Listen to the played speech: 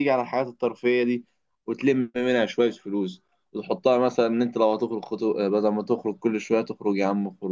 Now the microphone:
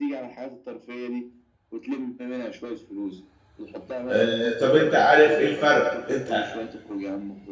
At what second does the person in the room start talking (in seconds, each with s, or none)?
4.1 s